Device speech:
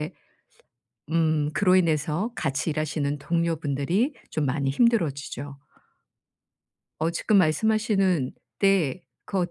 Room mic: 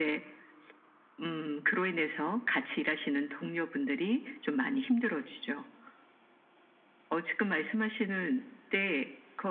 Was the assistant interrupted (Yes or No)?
No